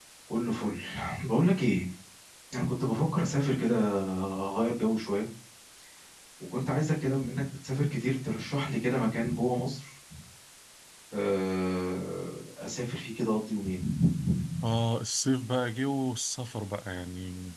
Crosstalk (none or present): none